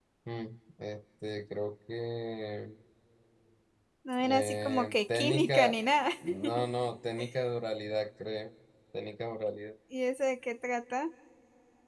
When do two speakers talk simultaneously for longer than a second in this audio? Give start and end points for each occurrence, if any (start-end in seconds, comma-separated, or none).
4.2-5.8